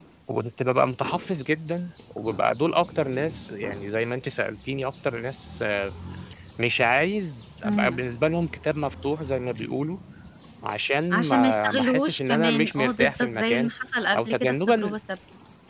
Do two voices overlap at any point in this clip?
Yes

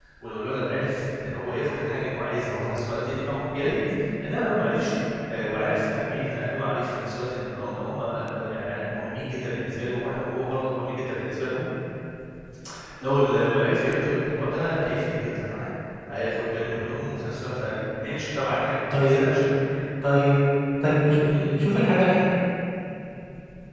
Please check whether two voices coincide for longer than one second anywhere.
No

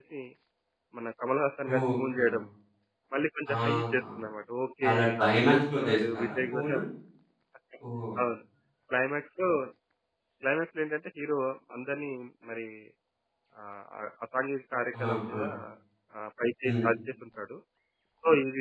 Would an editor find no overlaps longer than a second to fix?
No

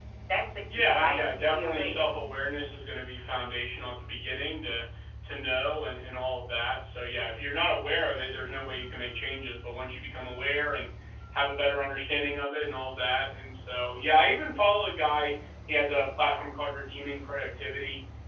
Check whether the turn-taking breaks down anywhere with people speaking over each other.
Yes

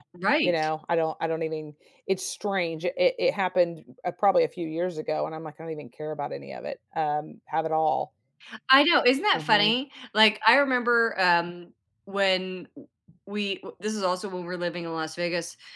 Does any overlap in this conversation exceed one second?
No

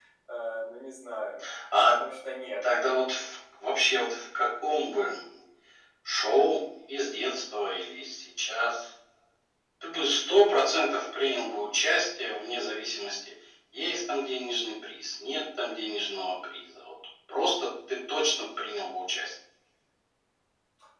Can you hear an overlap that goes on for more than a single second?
No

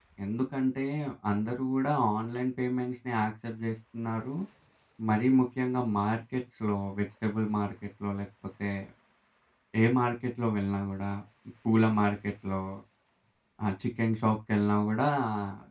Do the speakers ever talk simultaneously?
No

